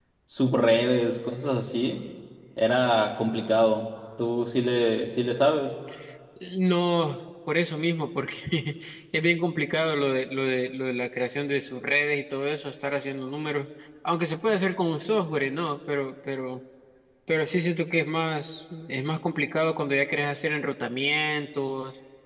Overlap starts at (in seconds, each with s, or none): none